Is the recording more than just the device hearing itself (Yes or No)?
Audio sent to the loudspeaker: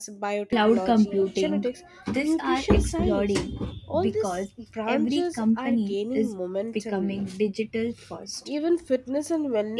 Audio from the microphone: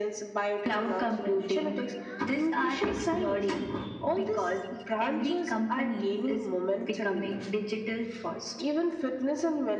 No